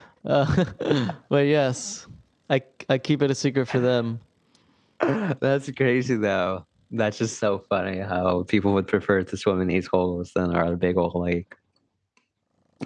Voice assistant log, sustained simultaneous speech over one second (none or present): none